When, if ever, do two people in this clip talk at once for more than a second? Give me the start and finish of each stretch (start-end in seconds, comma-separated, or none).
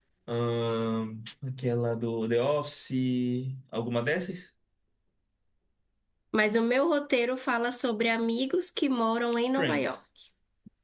none